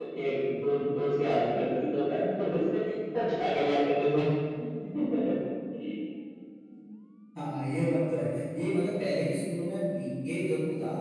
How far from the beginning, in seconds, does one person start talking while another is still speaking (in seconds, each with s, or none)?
none